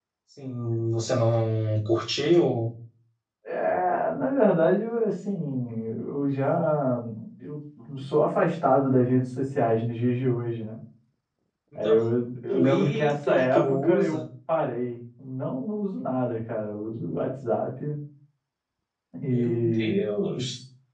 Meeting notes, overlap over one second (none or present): present